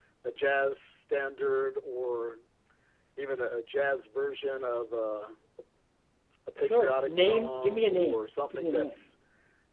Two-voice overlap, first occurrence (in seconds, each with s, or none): 6.6 s